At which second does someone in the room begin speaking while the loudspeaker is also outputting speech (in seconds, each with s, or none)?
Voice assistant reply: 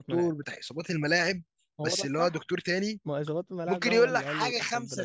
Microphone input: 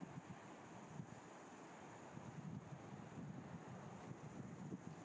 none